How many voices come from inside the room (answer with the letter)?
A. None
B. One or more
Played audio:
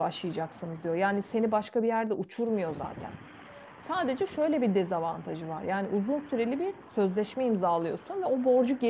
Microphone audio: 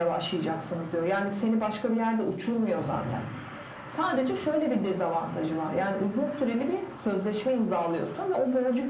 A